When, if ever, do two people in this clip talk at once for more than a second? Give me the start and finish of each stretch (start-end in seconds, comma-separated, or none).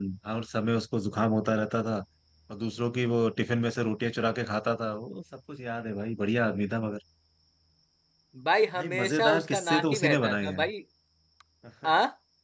8.8-10.6